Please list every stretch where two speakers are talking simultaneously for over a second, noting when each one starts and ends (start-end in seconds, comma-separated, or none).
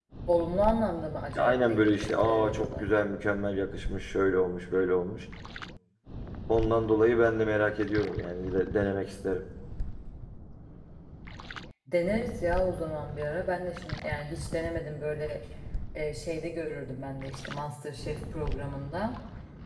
1.4-2.9